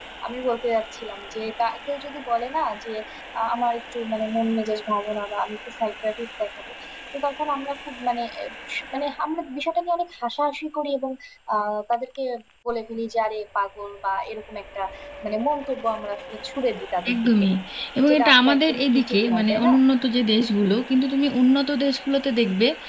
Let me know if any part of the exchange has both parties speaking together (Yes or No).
Yes